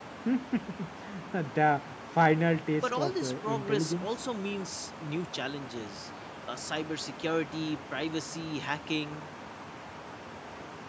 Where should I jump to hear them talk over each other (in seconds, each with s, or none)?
2.8 s